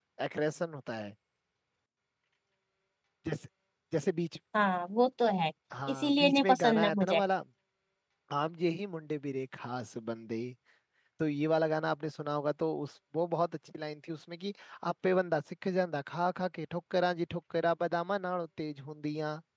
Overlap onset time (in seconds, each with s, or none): 5.9 s